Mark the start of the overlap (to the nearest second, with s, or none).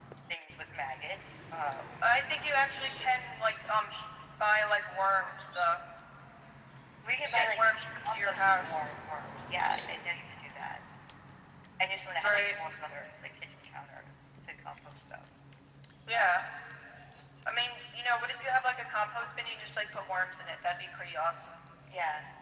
7 s